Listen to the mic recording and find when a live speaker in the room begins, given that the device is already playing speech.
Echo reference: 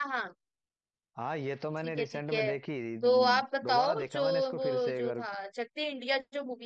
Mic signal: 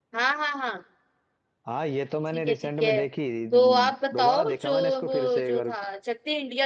none

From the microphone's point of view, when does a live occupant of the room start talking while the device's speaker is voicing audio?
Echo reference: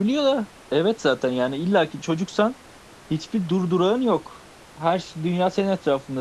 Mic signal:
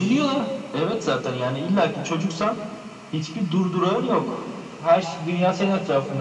none

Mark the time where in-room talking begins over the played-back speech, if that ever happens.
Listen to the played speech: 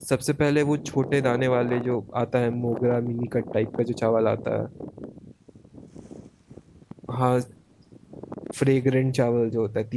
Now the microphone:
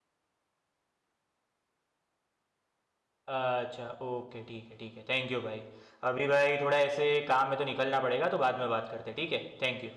3.3 s

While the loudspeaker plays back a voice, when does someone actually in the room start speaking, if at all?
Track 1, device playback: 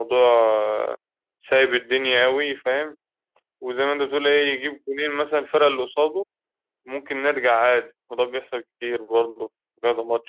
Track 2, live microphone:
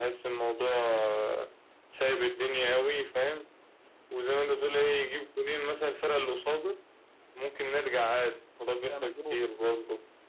8.7 s

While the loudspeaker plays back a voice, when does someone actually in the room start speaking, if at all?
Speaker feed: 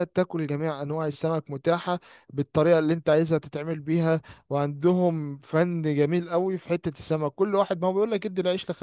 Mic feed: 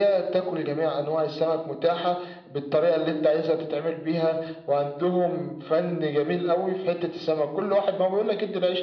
none

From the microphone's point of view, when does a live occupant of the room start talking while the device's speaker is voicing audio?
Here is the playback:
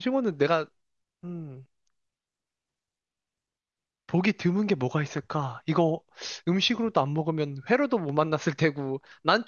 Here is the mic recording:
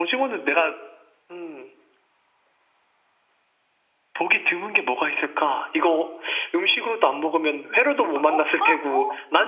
7.5 s

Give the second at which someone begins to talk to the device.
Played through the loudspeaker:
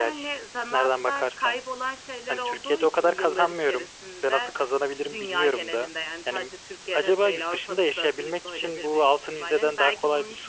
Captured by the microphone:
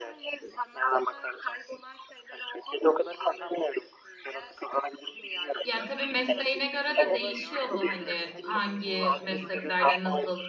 5.6 s

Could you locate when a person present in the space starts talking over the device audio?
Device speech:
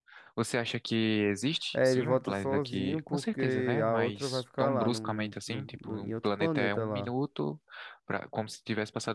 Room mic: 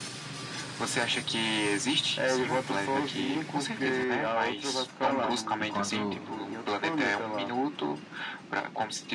5.6 s

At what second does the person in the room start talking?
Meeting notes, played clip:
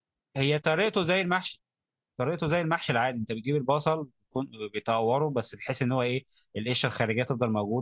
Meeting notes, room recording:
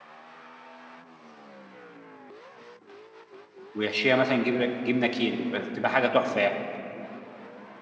3.7 s

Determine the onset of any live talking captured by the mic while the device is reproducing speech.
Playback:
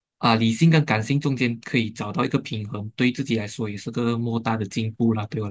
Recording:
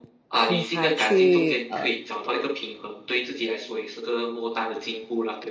0.4 s

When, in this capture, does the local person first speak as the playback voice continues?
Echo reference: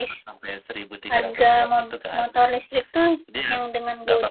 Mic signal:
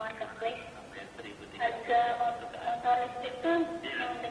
none

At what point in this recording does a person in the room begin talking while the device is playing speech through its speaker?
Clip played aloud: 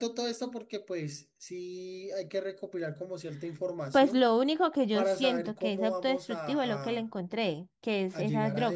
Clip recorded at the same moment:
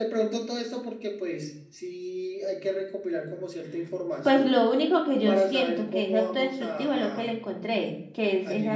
none

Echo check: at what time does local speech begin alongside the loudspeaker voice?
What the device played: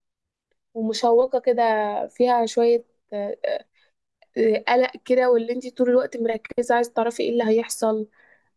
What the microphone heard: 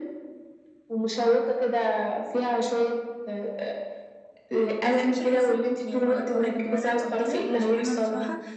4.8 s

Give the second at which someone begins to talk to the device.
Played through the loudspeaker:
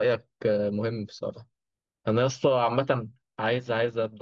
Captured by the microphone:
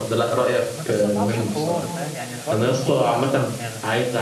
0.5 s

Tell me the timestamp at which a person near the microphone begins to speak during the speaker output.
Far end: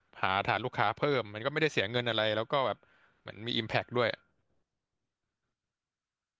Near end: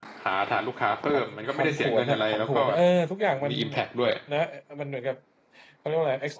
1.1 s

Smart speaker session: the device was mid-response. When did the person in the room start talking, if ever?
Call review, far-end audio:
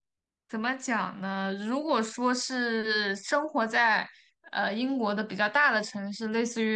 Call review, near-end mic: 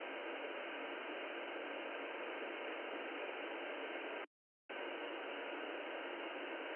none

